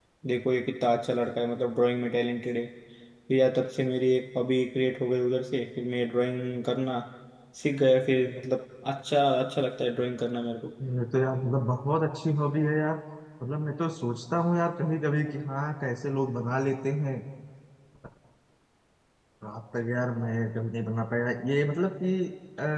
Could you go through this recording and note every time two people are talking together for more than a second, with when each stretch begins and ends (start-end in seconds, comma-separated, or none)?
none